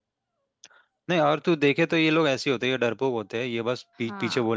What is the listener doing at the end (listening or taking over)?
listening